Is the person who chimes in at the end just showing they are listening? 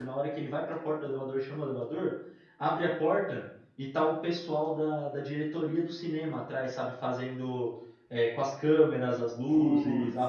Yes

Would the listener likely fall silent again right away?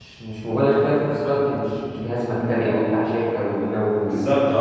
No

